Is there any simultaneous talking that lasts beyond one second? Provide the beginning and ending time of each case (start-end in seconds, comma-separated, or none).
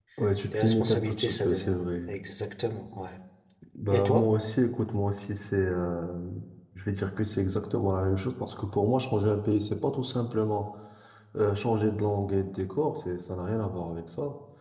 0.5-2.1